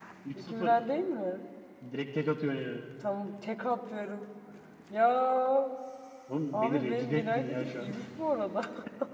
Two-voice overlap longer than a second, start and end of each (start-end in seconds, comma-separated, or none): 6.5-7.9